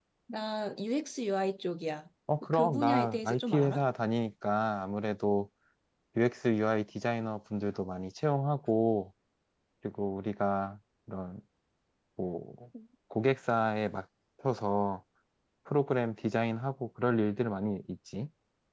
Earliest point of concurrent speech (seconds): 2.5 s

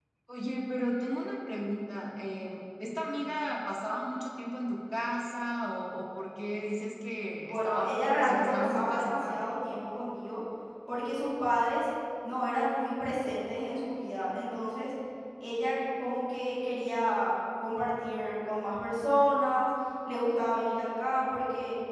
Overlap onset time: 7.4 s

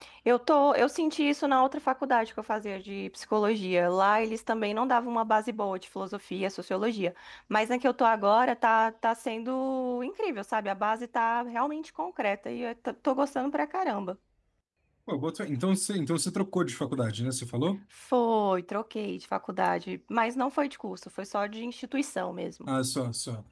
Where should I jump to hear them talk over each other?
none

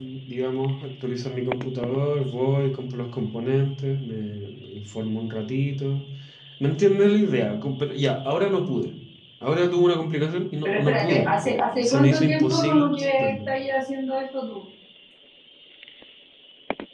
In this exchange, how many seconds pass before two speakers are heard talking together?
10.6 s

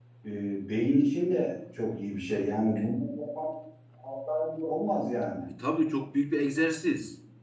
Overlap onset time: none

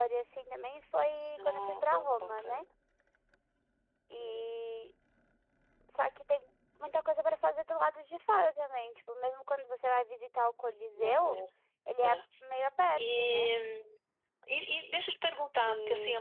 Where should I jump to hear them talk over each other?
1.4 s

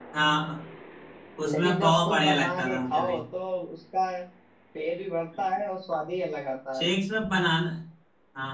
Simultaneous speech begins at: 1.4 s

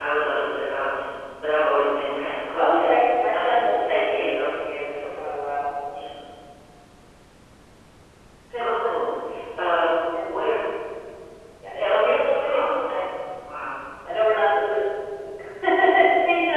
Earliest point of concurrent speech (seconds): 2.6 s

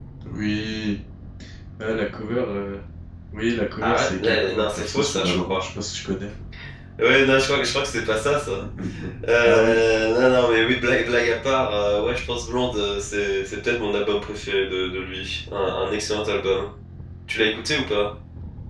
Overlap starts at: 3.8 s

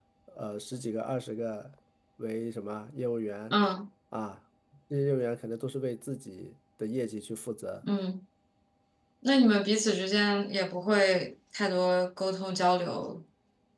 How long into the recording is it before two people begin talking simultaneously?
none

